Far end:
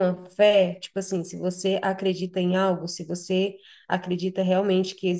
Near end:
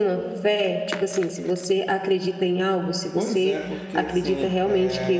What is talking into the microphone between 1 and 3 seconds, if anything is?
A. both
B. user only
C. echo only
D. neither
C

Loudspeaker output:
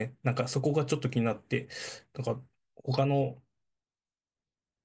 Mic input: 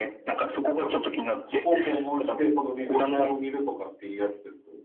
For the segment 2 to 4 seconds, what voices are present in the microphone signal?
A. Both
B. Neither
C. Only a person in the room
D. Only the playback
A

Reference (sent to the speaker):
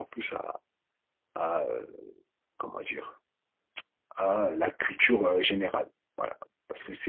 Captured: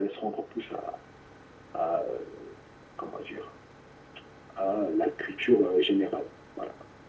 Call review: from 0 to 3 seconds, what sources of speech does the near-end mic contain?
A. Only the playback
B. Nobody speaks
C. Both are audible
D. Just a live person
A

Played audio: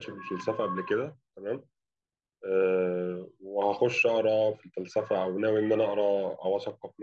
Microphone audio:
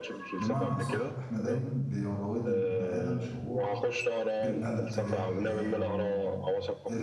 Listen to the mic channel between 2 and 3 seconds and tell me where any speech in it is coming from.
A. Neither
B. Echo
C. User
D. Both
D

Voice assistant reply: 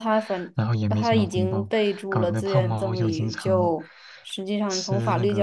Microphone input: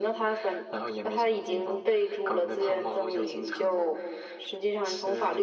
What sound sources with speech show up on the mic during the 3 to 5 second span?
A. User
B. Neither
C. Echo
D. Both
C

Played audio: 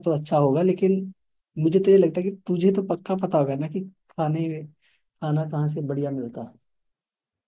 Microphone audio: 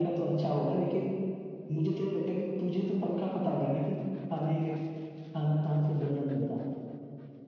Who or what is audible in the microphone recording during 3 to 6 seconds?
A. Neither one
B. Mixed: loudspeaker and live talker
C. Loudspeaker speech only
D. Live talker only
C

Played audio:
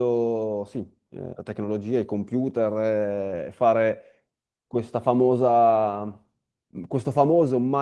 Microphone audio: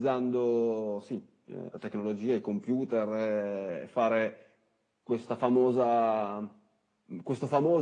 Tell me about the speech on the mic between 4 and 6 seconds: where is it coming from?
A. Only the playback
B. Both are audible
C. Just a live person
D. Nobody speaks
A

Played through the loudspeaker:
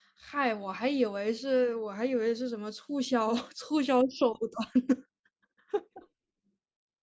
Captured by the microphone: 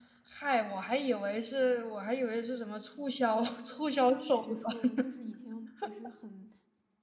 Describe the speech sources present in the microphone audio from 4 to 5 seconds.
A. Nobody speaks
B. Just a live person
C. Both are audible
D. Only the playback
C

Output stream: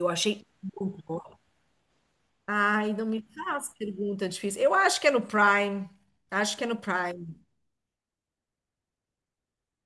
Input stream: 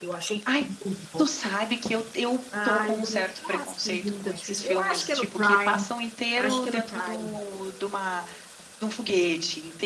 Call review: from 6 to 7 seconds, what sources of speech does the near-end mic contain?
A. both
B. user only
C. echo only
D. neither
A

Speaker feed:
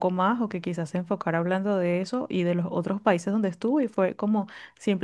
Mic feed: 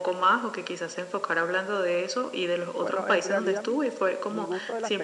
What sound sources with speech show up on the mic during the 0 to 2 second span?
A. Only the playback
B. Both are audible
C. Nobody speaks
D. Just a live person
A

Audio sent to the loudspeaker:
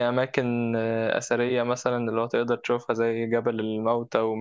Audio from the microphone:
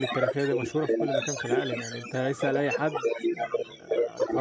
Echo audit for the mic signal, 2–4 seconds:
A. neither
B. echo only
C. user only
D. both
D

